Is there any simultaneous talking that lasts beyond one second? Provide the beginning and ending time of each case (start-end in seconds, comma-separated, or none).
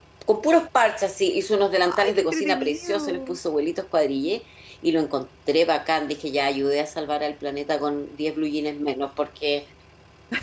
1.8-3.4